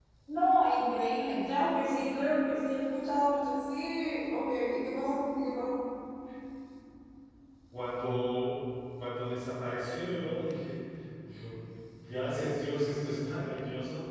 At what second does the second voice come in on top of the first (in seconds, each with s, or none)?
none